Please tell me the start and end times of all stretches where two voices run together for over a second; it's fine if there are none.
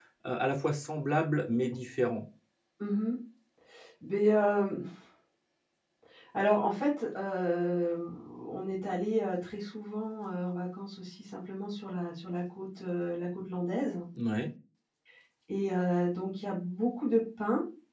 none

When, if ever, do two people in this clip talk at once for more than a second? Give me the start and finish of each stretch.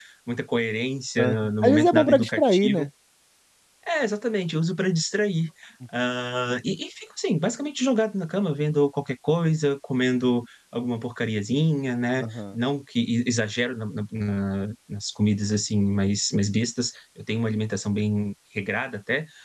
1.2-2.9

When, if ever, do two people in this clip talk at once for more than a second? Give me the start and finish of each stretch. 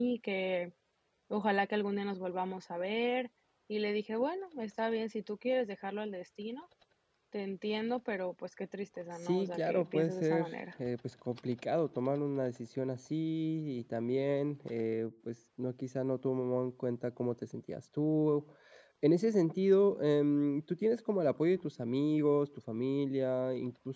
9.2-10.5

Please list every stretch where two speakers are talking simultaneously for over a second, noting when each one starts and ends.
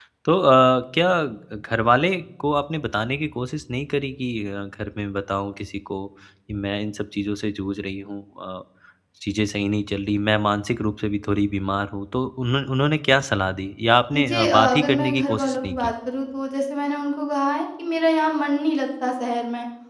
14.1-15.9

